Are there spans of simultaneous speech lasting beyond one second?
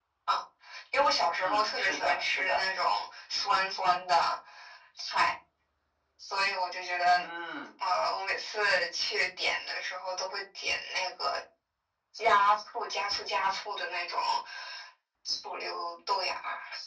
Yes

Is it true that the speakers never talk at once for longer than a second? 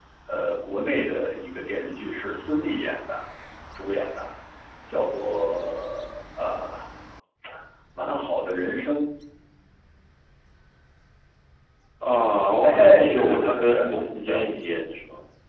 No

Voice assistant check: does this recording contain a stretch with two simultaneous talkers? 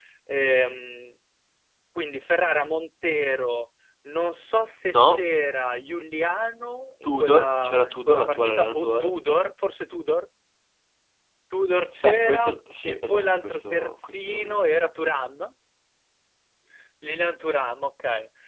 Yes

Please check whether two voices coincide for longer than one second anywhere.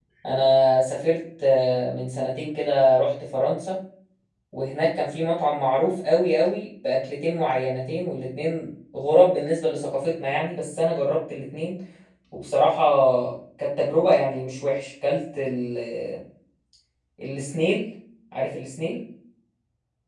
No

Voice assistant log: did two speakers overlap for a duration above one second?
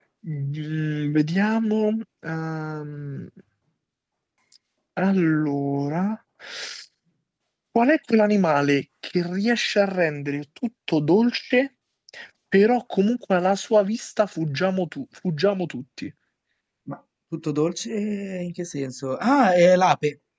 No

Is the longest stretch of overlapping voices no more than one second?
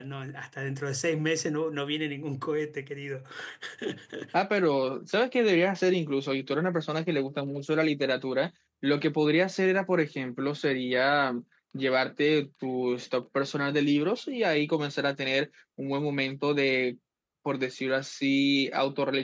Yes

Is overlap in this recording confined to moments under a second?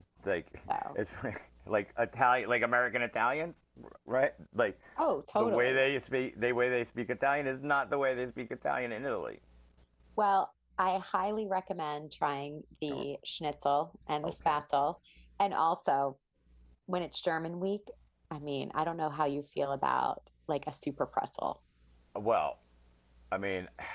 Yes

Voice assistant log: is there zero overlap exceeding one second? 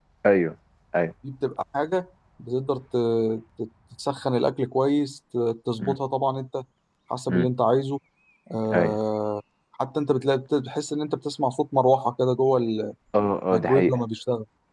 Yes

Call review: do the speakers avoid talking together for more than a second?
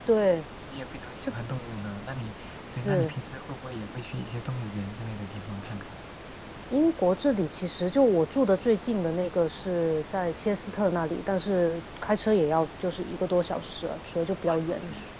Yes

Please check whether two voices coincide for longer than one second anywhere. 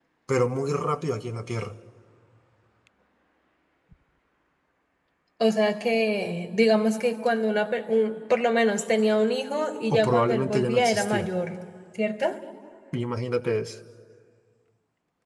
Yes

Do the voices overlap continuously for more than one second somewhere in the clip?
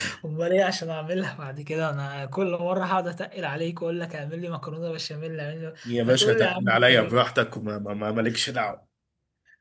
Yes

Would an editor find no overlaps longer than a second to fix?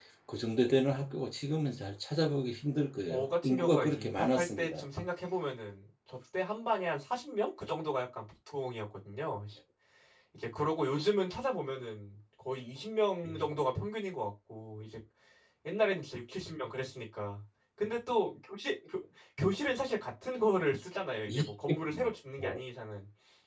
No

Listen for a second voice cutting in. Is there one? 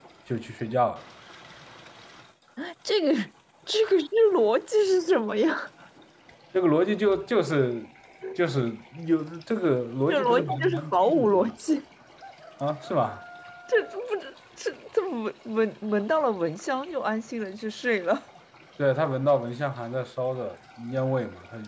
Yes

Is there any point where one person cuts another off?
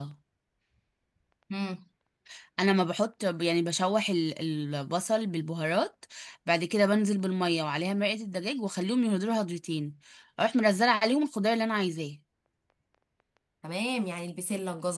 No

